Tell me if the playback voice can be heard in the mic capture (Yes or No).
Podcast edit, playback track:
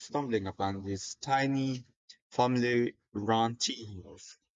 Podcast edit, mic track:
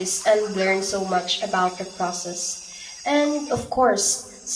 No